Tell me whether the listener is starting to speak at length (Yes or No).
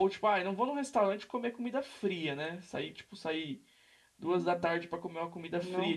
No